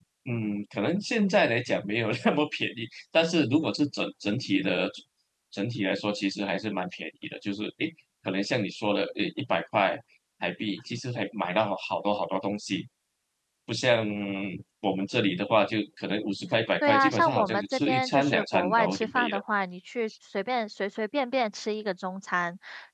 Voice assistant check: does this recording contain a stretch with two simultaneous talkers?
Yes, from 16.8 s

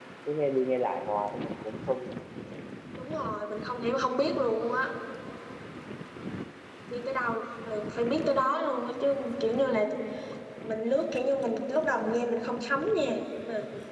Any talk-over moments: No

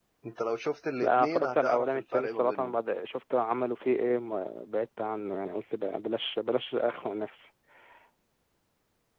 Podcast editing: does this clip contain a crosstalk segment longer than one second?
Yes, from 1.0 s

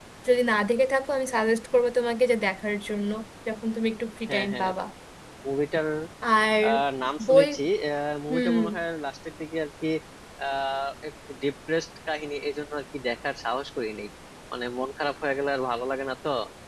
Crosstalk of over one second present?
No

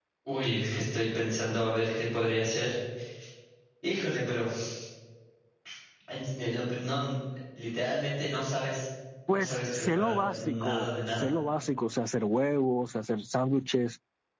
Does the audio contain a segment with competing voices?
Yes, from 9.3 s

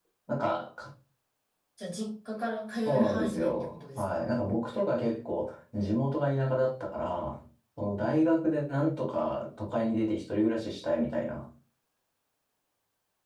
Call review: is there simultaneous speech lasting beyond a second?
Yes, from 2.8 s

